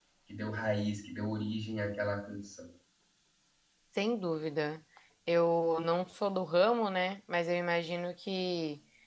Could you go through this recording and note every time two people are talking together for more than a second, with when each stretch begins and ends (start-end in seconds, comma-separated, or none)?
none